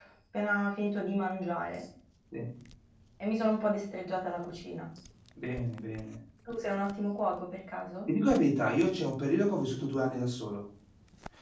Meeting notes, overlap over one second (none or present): none